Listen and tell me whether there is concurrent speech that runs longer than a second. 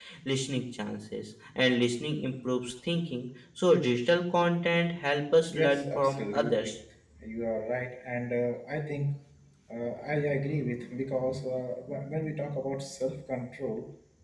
Yes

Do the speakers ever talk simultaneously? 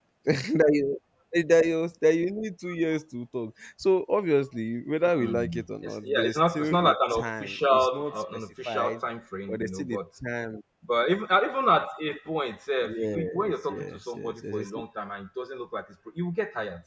Yes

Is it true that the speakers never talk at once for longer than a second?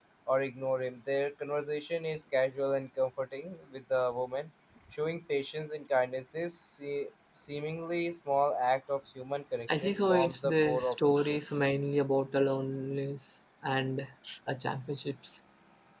No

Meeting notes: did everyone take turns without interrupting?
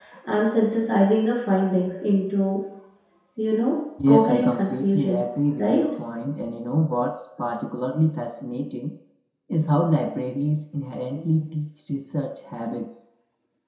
No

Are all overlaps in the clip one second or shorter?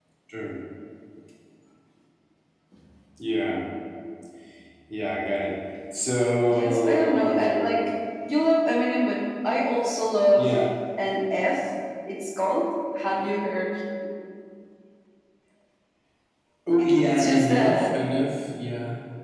No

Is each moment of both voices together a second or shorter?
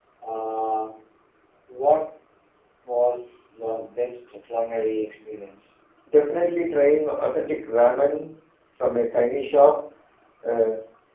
Yes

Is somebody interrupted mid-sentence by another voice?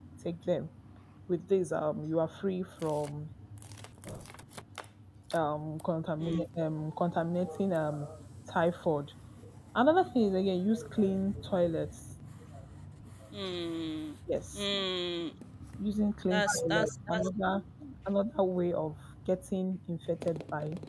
Yes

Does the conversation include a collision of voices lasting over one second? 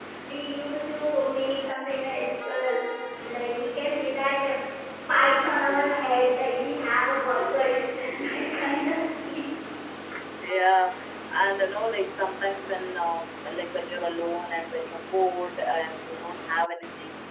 No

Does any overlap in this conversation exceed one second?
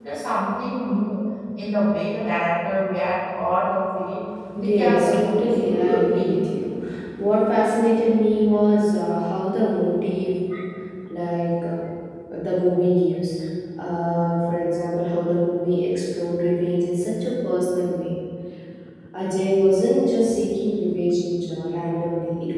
Yes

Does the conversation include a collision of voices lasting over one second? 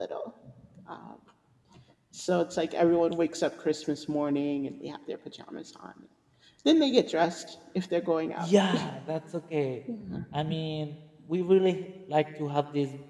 No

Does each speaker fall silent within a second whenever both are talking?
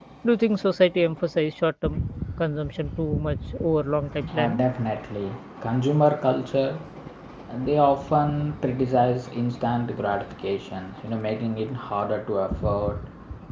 Yes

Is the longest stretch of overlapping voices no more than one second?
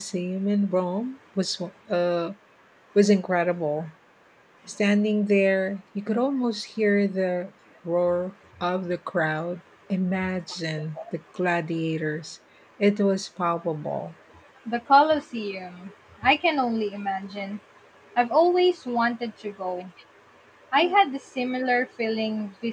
Yes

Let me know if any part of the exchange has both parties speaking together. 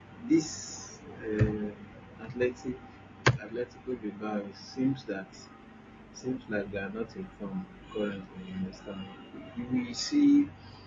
No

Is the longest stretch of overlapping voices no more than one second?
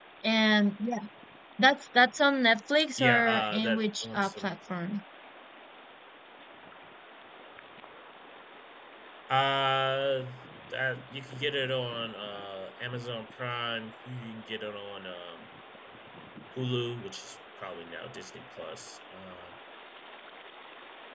No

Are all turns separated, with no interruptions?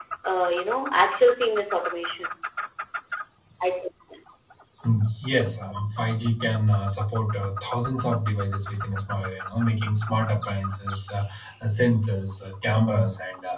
Yes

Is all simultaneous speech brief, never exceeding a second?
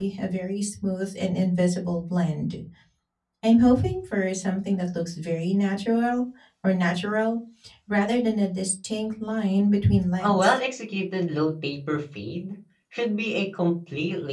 Yes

